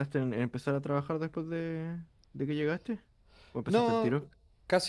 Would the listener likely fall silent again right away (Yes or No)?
No